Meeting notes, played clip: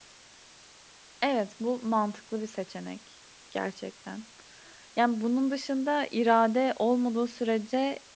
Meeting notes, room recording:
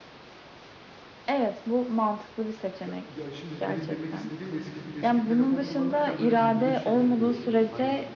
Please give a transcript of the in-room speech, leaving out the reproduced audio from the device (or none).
be ya, şimdi benim demek istediğim, eski d eski telefon kullanırken böyle bildirim şeyleri de yoktu. Hani,